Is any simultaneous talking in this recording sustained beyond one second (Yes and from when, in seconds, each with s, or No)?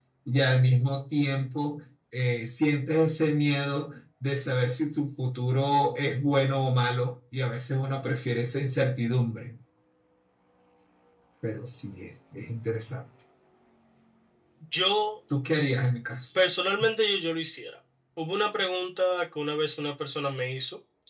No